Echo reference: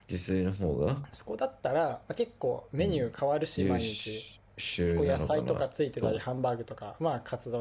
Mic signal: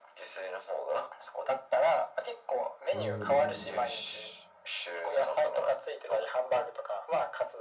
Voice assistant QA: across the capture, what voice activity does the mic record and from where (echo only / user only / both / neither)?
both